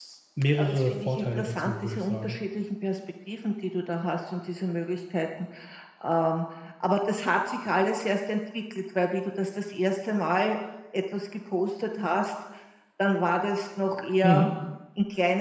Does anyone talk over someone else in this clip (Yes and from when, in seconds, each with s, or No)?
Yes, from 0.6 s